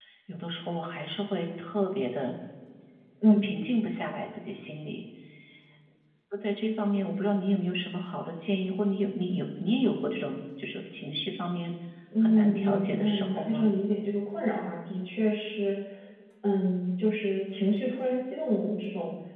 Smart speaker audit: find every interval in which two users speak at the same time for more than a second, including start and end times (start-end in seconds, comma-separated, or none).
12.2-13.7